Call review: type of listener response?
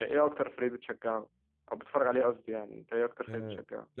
taking over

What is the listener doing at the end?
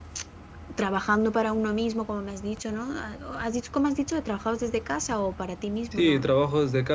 taking over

